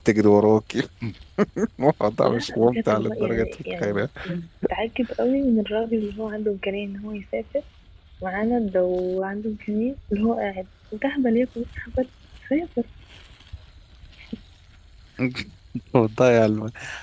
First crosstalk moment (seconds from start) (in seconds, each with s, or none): 2.2 s